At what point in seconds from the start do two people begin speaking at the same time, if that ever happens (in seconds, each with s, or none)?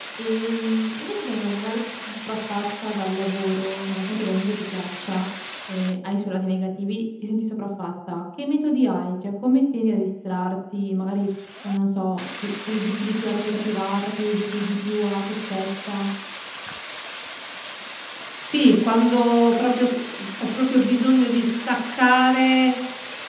none